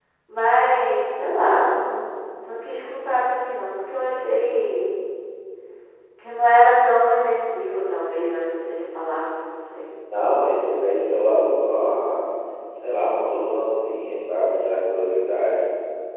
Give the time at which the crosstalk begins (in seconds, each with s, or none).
none